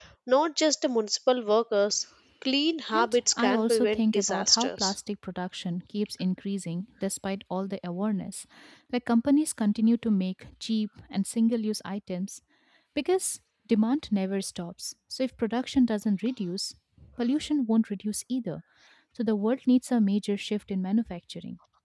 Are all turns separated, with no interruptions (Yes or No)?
No